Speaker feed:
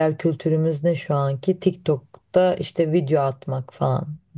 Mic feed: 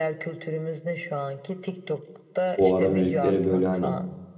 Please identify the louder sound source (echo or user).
user